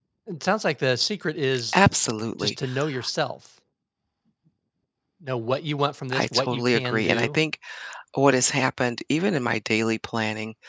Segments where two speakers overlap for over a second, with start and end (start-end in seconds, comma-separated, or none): 6.1-7.4